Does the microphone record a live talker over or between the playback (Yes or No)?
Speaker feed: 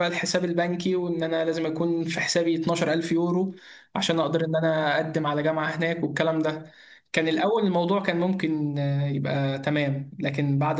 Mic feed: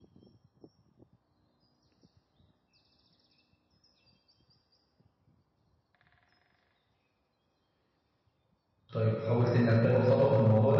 Yes